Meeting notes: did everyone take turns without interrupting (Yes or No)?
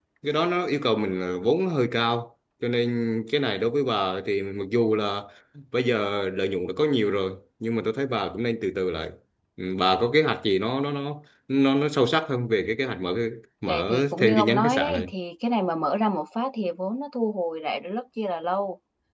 No